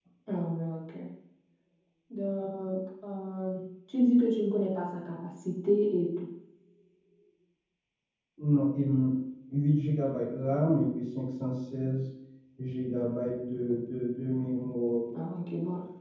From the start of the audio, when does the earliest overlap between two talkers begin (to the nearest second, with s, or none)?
none